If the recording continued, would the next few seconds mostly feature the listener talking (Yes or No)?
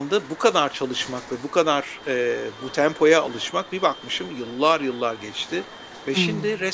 No